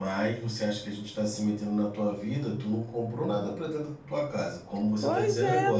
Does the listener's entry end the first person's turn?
Yes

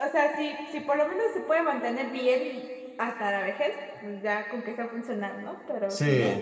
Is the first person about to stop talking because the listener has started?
Yes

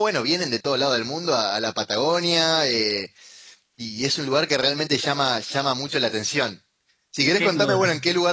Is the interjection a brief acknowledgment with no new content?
Yes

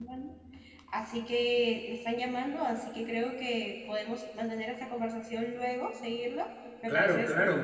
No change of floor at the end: No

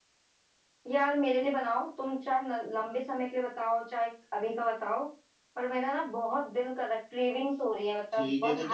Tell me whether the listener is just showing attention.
No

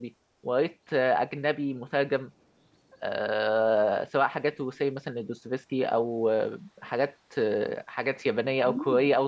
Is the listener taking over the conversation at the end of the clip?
No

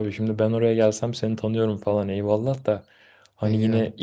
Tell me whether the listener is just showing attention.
Yes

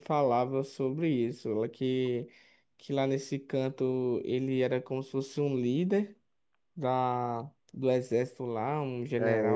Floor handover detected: Yes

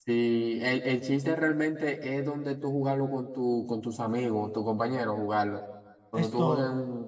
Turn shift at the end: No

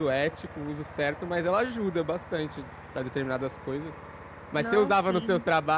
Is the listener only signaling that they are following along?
Yes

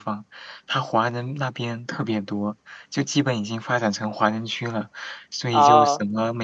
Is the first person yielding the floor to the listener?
No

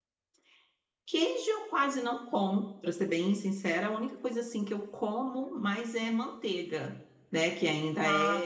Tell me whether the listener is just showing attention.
Yes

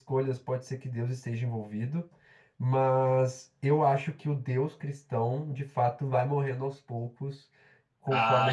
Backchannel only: No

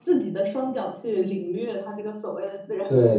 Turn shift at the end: Yes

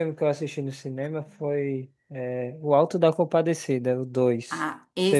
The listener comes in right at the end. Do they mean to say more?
Yes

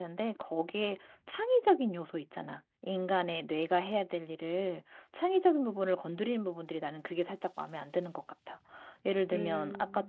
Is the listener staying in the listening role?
Yes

